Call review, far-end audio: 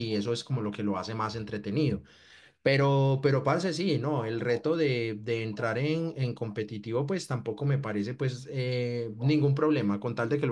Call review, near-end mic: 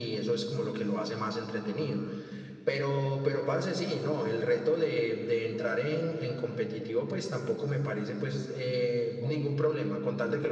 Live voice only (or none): none